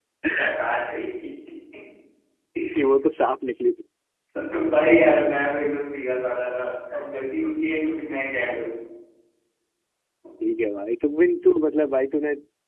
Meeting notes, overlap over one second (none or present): none